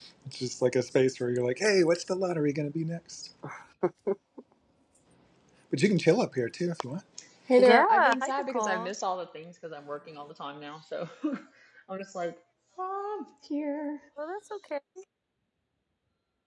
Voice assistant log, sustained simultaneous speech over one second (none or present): present